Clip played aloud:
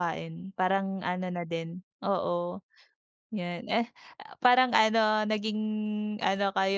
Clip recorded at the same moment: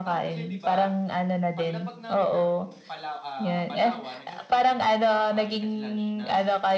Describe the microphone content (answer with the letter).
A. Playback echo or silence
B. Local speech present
B